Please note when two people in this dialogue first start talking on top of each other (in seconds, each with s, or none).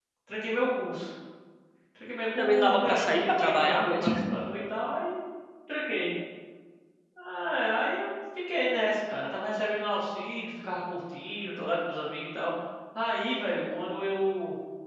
2.4 s